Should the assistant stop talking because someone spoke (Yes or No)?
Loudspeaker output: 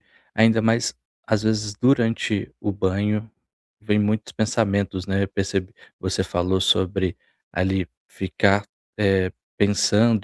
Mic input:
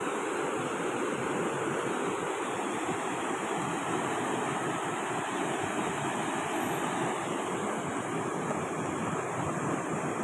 No